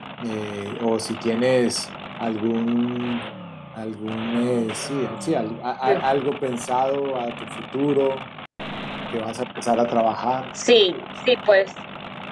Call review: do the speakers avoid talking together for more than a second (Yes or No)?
Yes